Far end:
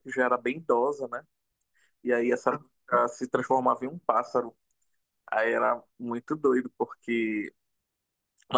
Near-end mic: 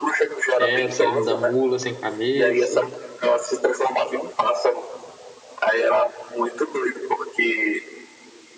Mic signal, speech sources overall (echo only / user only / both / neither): both